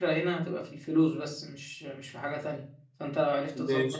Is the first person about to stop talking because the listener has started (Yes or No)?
No